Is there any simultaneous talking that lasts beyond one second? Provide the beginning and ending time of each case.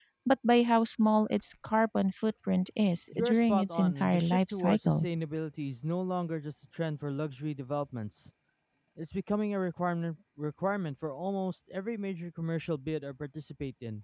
3.1-5.1

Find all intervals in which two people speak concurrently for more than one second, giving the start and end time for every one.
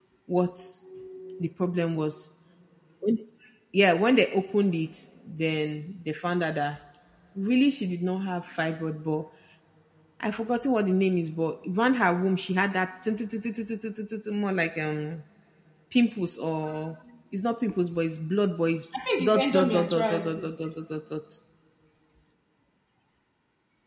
19.2-20.6

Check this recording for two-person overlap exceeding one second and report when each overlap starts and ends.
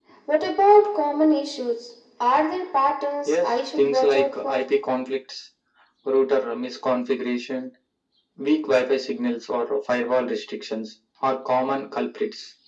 3.2-4.7

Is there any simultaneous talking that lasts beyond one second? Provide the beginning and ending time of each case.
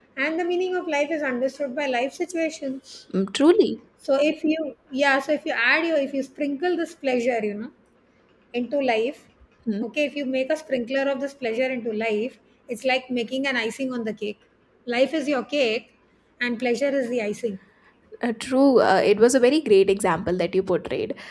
none

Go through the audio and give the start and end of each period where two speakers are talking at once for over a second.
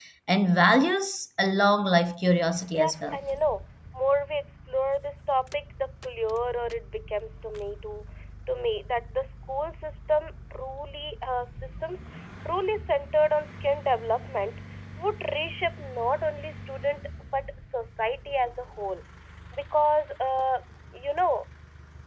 none

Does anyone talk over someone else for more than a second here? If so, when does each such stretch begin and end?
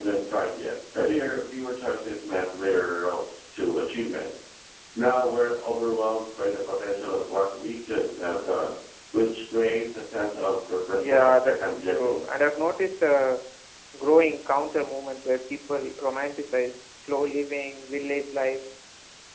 10.9-12.2

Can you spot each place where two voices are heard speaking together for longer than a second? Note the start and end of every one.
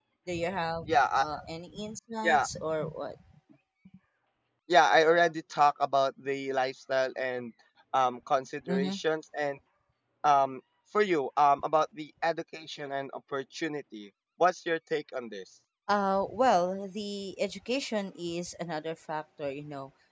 none

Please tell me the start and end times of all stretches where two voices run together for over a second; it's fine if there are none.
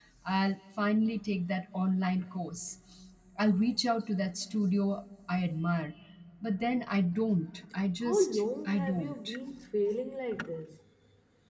8.0-9.4

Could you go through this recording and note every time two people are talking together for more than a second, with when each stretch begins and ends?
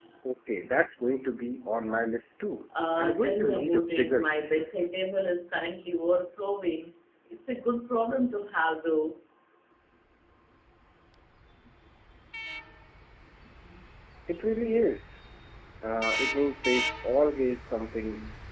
3.0-4.7

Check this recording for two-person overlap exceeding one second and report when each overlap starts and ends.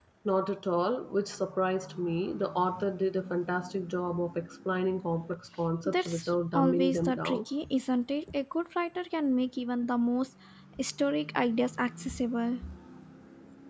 5.8-7.4

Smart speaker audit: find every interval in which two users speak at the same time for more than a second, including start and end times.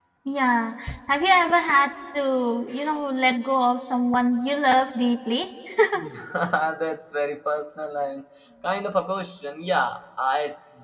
none

